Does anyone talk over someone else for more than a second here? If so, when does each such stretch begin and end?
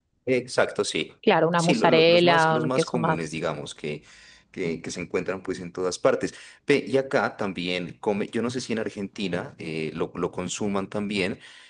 1.6-3.2

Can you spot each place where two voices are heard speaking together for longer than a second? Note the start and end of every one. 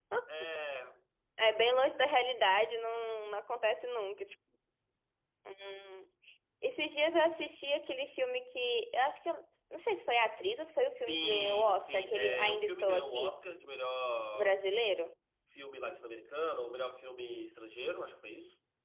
11.1-13.3

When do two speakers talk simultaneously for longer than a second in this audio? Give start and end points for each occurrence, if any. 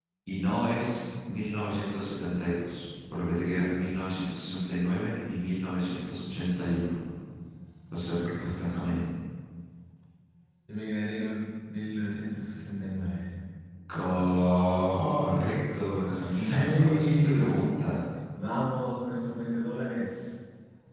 16.2-17.5

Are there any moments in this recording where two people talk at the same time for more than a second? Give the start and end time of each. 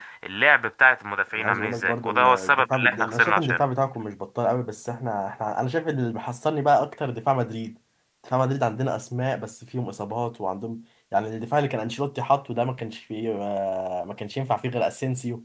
1.4-3.6

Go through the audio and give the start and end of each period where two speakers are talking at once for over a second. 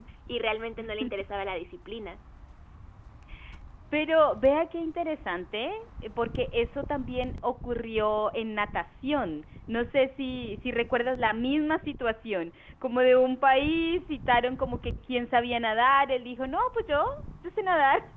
none

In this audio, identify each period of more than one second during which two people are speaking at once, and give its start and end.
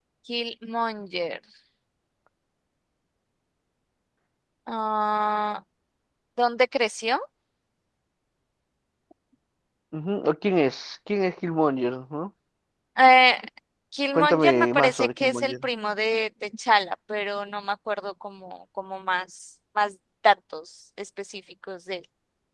14.1-15.5

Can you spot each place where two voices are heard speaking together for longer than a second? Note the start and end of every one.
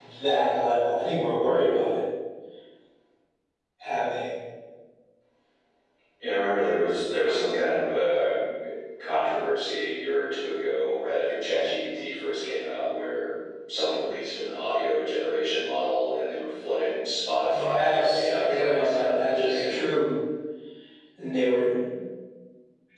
17.5-19.7

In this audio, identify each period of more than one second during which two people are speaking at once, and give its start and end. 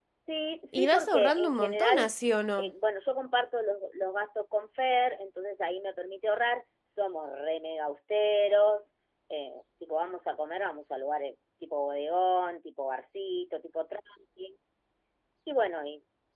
0.7-2.1

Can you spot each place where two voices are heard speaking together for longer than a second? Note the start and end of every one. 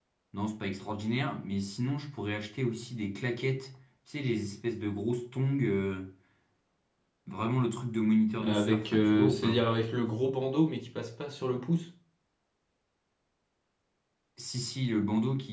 8.4-9.6

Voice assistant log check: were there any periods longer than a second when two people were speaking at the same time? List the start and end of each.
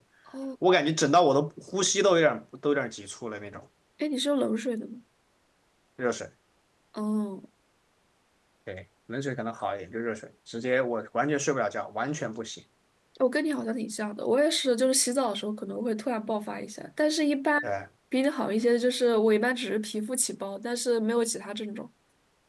none

